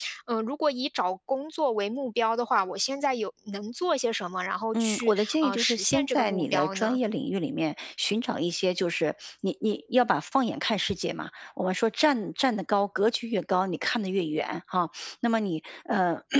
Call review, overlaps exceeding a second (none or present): present